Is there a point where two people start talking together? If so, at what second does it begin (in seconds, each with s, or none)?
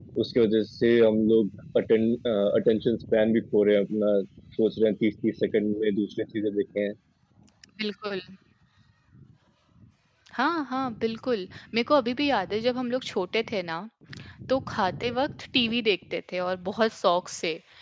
none